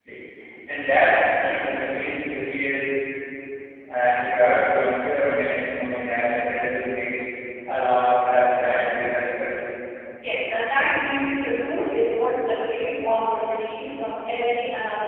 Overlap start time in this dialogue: none

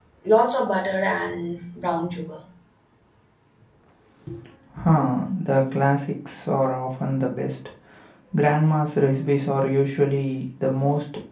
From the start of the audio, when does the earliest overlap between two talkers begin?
none

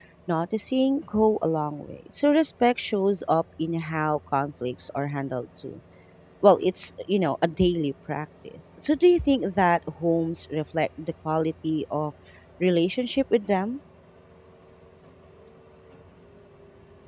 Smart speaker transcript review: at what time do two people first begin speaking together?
none

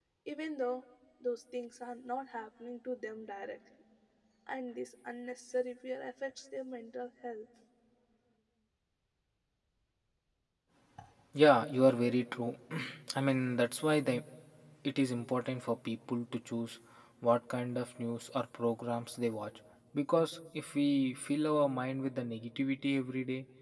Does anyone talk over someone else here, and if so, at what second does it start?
none

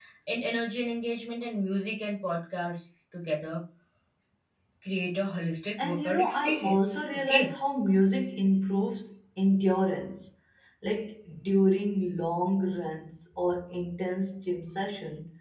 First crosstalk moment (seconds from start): 5.8 s

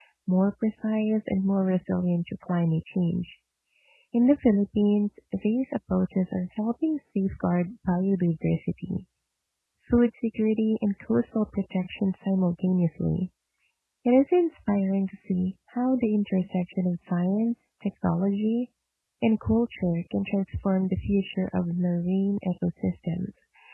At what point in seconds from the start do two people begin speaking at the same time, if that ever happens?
none

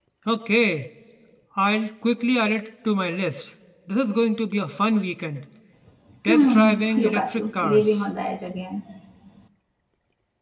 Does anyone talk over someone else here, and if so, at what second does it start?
6.3 s

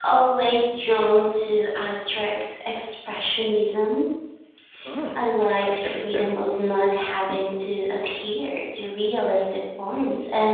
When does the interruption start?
5.2 s

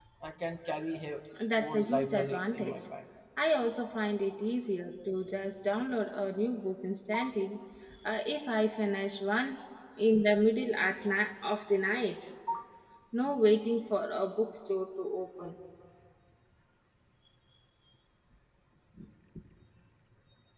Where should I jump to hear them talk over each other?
1.6 s

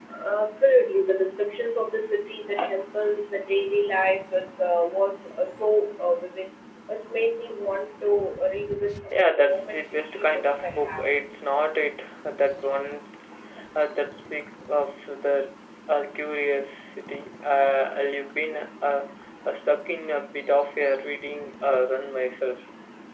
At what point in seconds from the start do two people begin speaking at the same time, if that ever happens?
9.1 s

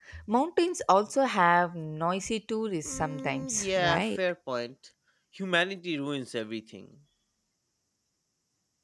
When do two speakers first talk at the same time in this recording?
2.8 s

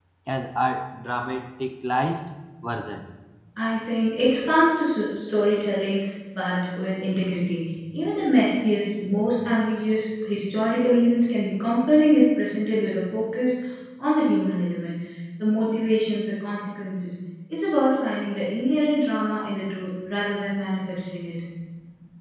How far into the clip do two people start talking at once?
none

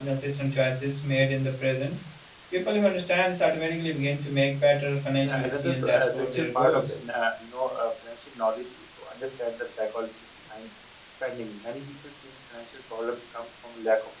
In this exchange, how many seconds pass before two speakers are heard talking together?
5.2 s

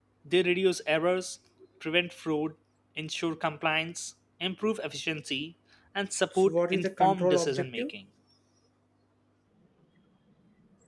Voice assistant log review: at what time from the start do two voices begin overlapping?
6.4 s

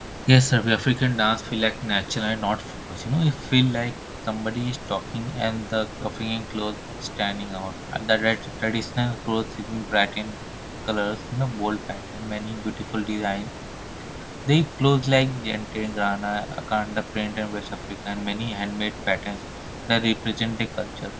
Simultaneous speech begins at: none

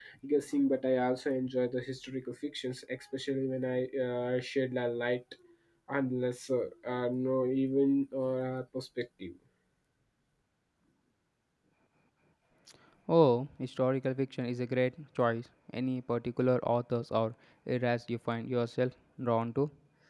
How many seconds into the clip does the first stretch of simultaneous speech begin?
none

